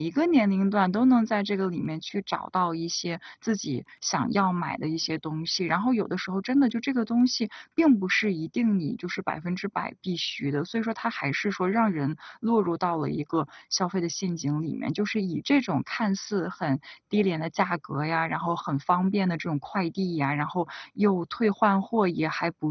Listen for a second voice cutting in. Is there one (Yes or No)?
No